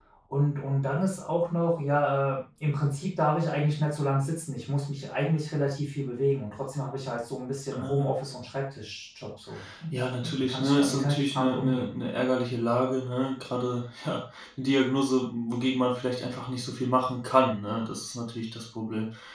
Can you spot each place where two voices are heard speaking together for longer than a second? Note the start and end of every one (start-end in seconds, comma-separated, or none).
10.2-11.8